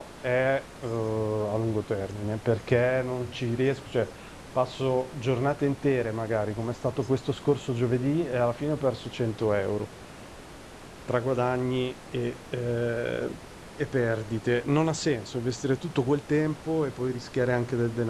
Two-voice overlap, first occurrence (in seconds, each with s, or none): none